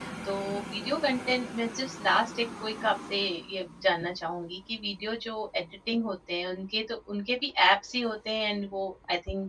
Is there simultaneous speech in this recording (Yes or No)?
No